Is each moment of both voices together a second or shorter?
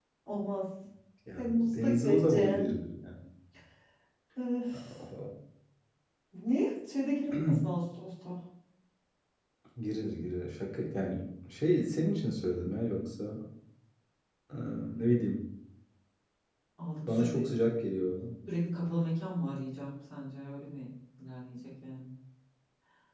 No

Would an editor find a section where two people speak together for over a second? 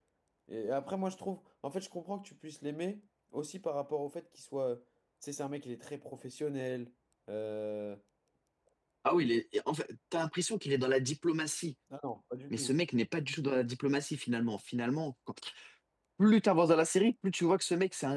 No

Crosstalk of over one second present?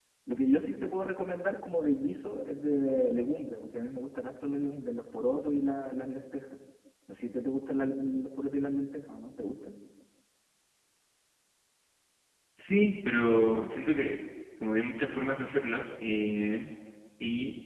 No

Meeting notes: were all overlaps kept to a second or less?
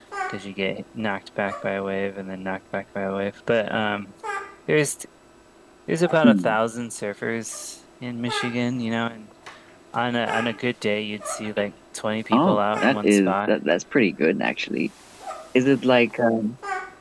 No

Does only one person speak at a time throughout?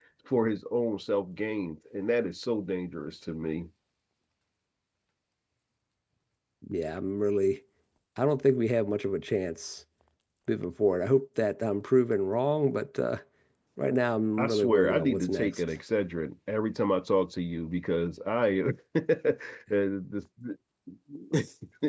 No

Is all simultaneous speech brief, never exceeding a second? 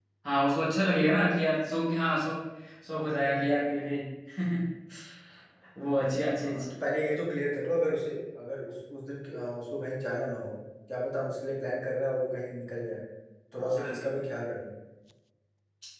Yes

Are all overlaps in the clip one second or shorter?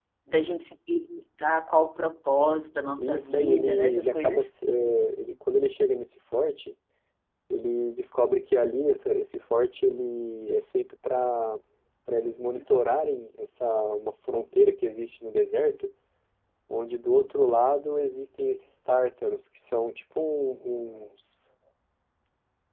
No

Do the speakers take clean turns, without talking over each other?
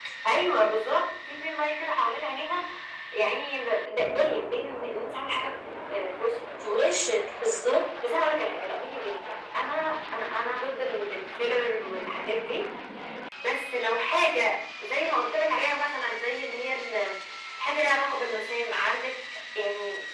Yes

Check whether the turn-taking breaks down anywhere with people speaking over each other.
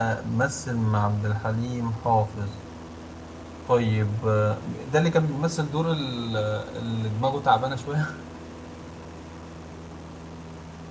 No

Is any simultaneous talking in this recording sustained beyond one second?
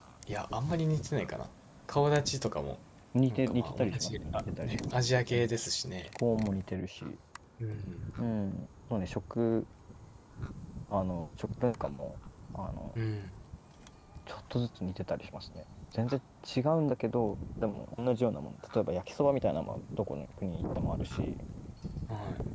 Yes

